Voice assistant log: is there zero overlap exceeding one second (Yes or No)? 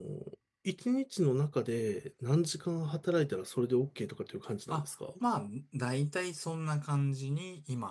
Yes